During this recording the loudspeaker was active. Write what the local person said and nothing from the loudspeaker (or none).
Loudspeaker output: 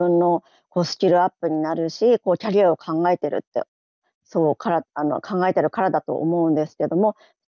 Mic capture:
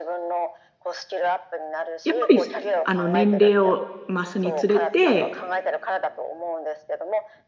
やっぱり、すあの、年齢を増すにつれて、